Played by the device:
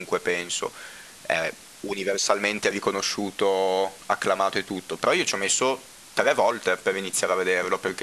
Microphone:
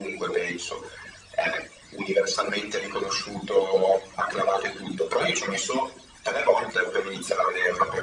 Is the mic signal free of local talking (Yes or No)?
Yes